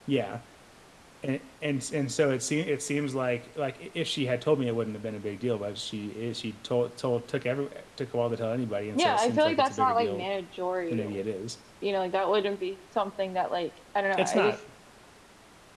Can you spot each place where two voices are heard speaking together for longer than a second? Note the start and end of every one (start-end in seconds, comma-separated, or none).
8.9-10.2